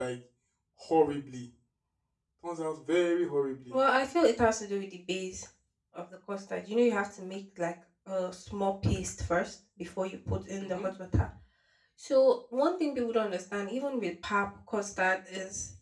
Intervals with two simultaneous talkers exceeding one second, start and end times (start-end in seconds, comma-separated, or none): none